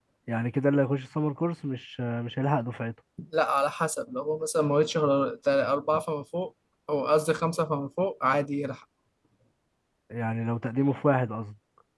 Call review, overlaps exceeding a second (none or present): none